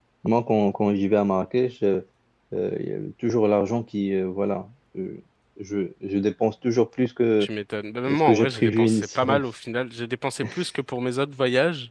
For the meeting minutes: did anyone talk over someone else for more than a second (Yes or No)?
Yes